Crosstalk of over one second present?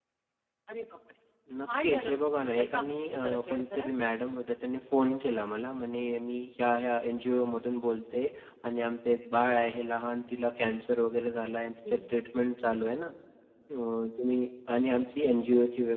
Yes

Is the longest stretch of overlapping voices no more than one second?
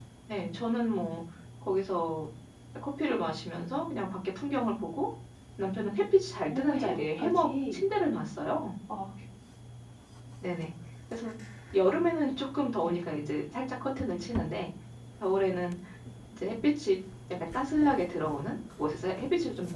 No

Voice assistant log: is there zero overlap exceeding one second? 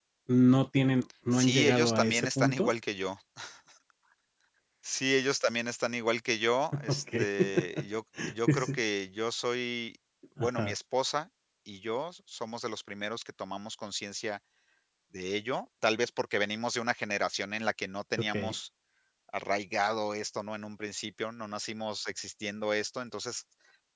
No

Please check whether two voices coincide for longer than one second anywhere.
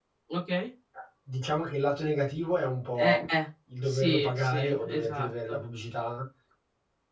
Yes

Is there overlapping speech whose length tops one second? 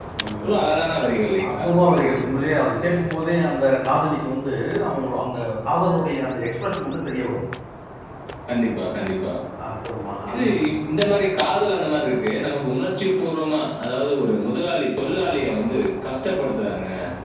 No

